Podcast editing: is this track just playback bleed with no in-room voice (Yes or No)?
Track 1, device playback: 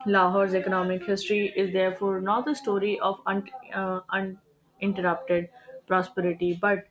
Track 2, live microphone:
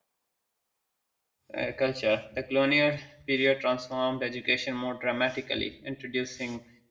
No